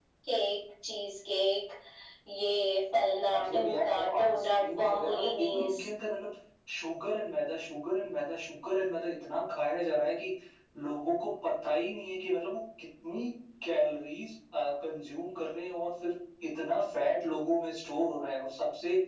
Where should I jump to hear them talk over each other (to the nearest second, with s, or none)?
3 s